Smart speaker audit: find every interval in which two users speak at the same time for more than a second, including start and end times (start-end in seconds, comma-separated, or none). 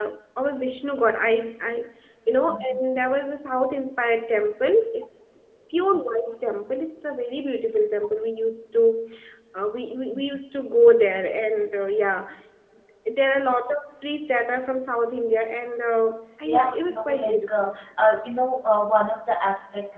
16.4-17.7